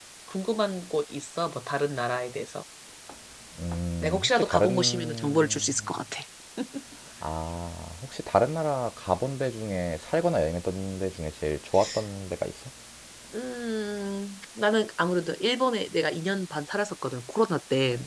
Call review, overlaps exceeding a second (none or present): present